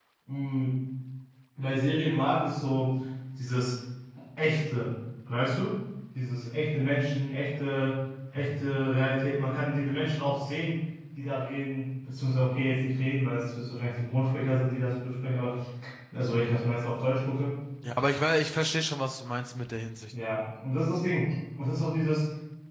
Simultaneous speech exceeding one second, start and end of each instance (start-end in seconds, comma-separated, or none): none